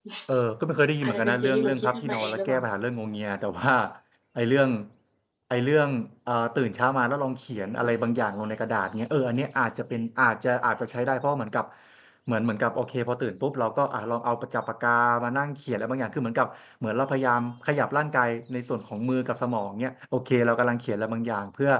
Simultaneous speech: Yes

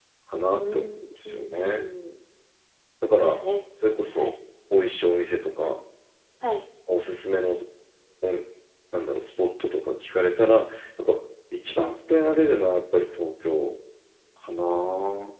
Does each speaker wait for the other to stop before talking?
No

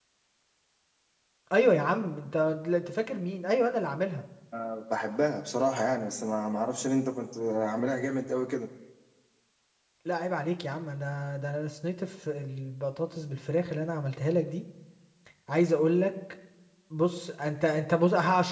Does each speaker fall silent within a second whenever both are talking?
Yes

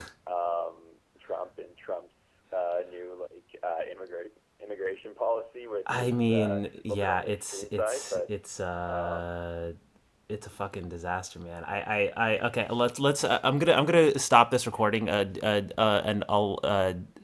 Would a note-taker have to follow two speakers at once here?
Yes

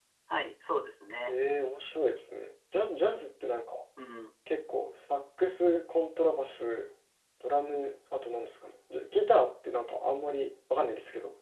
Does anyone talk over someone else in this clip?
No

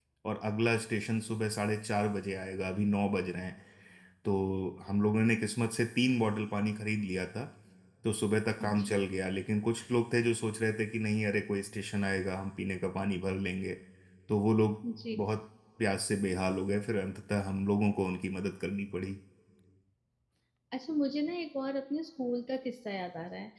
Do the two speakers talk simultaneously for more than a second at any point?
No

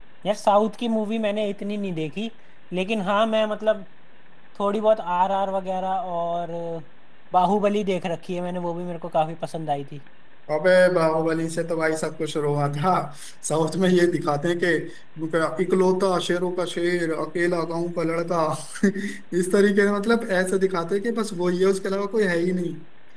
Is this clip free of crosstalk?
Yes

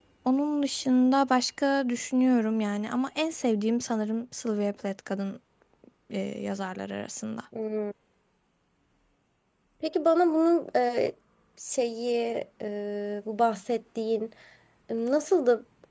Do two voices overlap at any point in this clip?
No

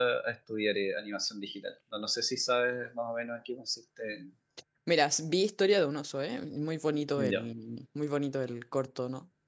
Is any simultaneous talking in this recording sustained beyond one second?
No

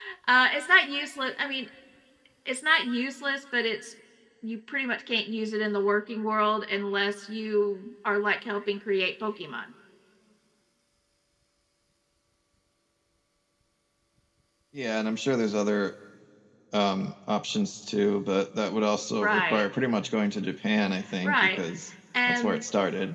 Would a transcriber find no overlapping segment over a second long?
Yes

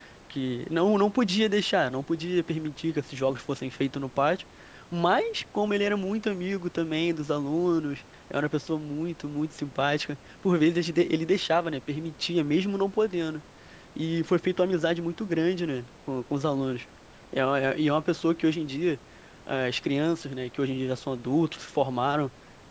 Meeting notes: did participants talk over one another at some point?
No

